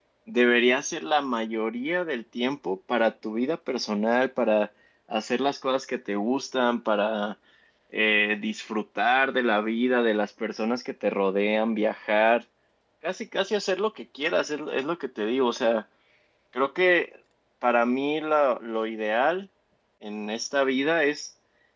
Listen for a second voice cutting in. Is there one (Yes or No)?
No